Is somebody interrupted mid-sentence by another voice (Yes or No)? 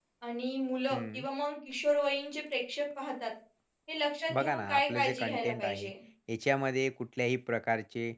Yes